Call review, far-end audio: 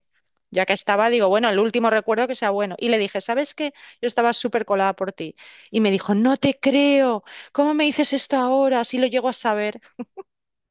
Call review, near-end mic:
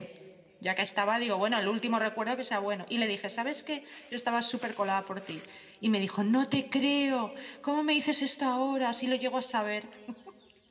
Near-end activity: none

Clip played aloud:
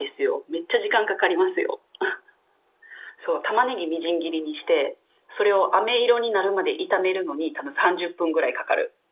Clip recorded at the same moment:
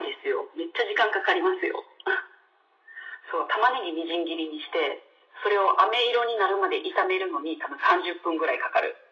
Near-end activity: none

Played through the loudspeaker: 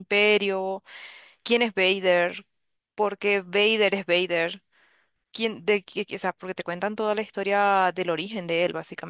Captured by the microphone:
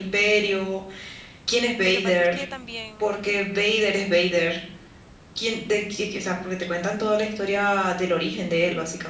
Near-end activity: present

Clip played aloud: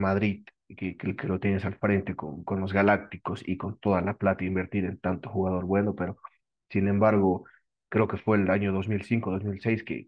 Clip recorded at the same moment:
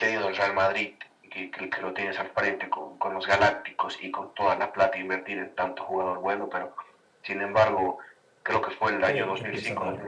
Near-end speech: present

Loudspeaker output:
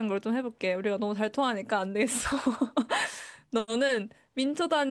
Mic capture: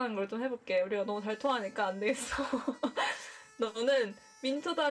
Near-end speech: none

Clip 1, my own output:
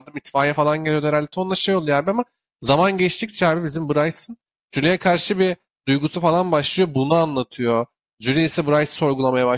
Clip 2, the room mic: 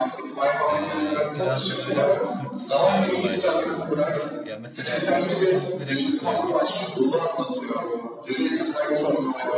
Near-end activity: present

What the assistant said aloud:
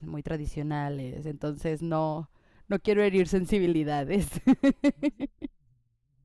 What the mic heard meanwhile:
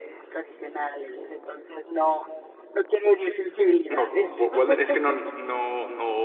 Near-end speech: present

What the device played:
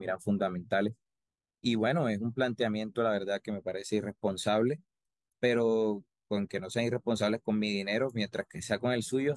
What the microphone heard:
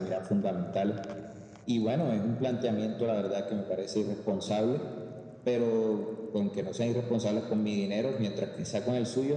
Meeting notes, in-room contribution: none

